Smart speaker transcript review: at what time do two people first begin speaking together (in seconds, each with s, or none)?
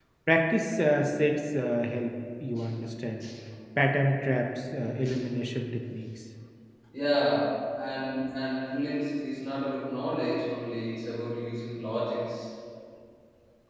none